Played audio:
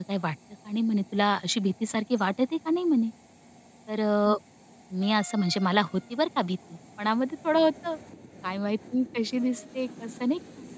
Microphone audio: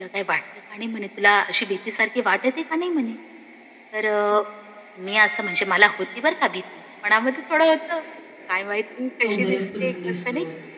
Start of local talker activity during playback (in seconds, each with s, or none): 9.3 s